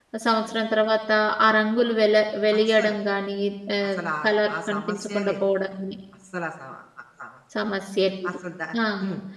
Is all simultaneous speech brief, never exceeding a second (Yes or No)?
No